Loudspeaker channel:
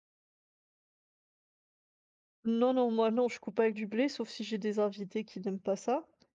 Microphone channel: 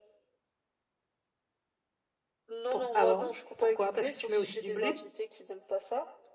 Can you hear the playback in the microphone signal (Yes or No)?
Yes